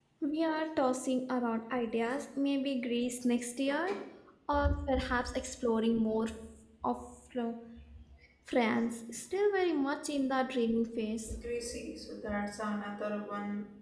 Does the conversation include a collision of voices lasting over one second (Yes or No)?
No